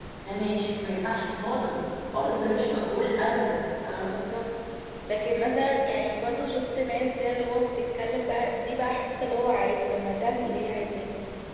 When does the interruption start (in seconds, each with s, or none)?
none